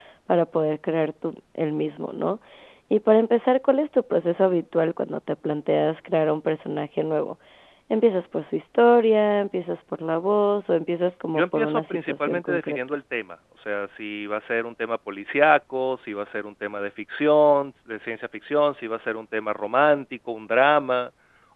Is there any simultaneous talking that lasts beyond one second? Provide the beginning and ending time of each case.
11.4-12.8

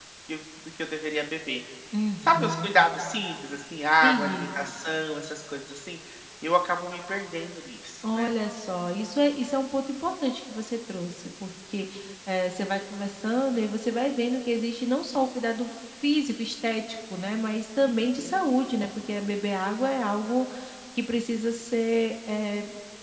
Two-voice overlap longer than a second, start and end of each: none

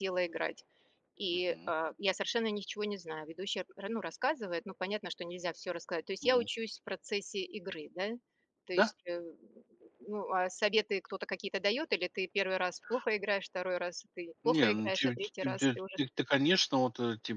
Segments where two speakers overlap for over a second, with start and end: 14.4-15.8

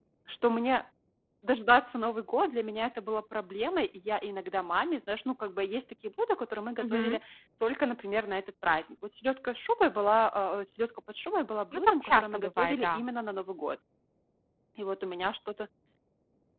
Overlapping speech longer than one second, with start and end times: 11.7-13.0

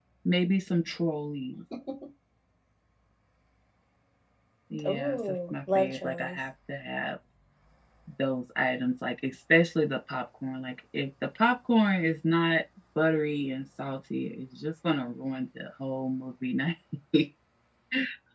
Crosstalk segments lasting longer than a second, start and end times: 4.8-6.4

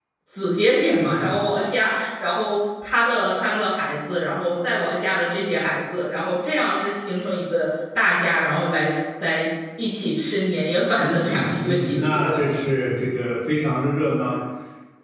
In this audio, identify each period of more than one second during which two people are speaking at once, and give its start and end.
11.0-12.4

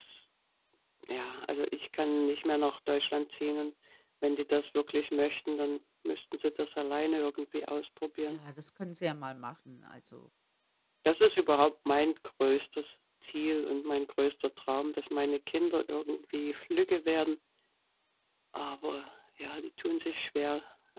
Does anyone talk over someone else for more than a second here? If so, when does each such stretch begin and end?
none

